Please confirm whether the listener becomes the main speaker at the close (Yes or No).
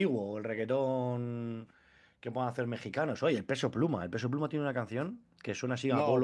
No